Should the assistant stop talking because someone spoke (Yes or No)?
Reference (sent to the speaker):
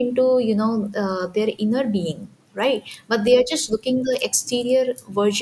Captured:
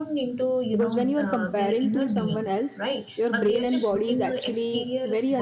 Yes